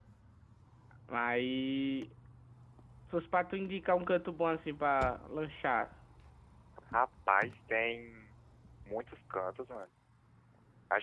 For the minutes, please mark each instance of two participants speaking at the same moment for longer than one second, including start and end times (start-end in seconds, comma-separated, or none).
none